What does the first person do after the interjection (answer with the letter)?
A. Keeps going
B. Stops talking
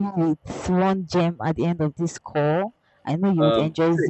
B